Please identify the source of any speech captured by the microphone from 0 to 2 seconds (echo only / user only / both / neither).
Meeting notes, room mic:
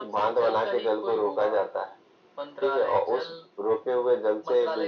echo only